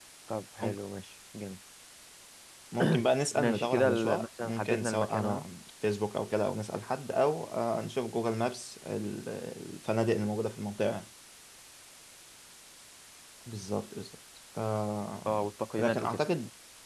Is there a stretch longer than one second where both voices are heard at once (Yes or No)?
Yes